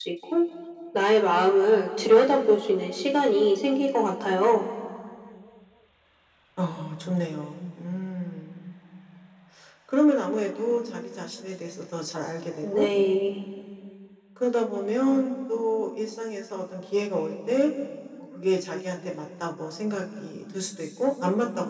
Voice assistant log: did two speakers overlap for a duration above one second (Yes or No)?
No